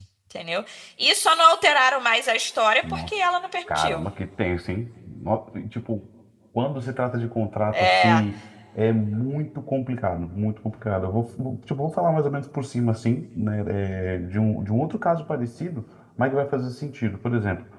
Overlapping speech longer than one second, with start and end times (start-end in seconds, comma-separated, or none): none